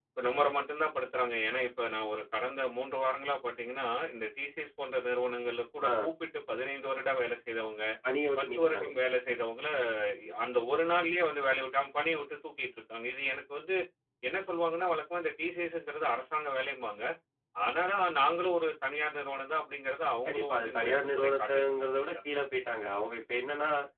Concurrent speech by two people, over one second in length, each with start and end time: 20.3-22.1

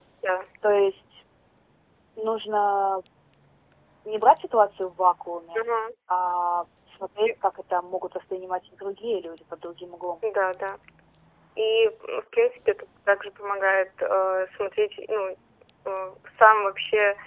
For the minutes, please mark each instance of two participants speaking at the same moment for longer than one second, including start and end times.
none

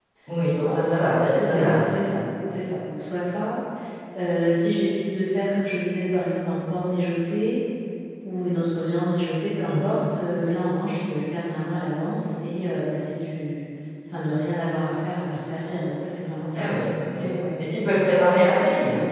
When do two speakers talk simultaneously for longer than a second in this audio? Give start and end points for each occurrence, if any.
0.6-2.2

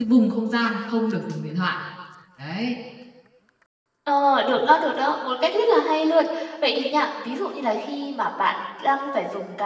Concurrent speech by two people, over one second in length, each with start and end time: none

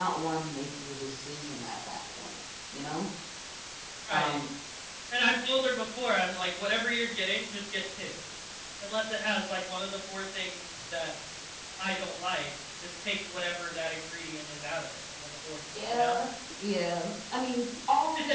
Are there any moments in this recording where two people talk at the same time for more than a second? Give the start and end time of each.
none

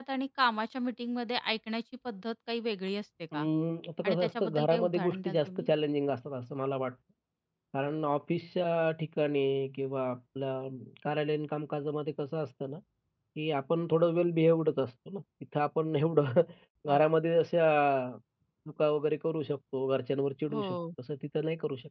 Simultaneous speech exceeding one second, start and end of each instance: 4.0-5.7

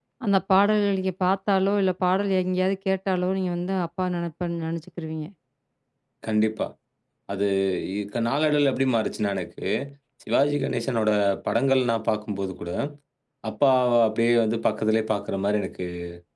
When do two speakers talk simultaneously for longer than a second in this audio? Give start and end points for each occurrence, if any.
none

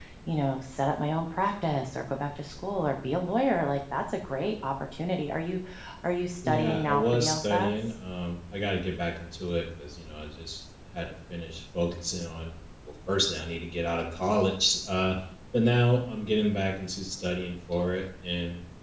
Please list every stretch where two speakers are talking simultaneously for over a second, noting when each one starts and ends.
6.4-7.7

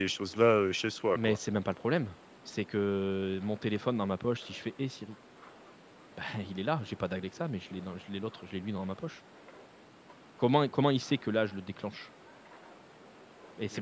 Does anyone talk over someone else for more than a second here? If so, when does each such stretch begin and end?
none

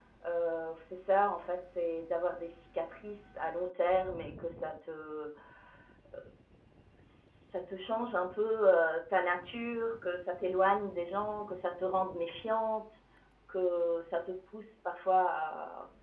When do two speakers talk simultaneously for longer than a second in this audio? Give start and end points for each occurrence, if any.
none

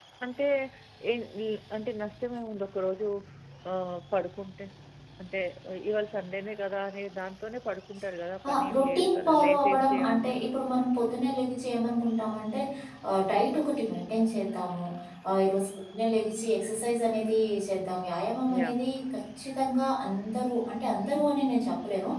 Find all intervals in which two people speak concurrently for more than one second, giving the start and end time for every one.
8.5-10.4

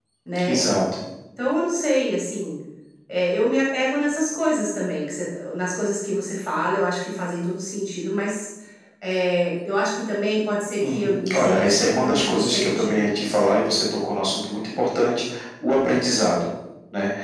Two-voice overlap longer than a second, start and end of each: 10.9-13.1

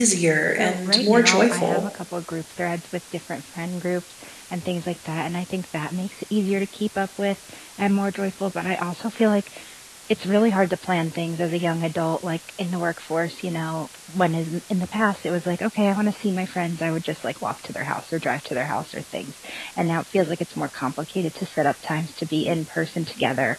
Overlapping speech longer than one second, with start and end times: 0.5-1.8

